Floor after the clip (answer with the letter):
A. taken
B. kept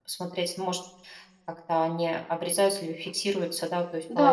A